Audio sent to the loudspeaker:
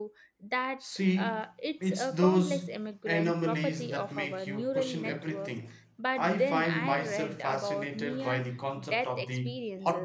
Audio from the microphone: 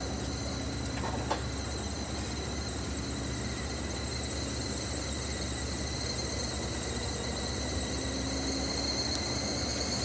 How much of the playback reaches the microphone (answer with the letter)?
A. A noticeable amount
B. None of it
B